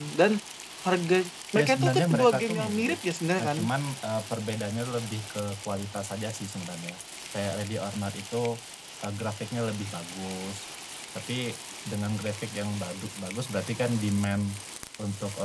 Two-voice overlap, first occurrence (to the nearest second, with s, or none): 2 s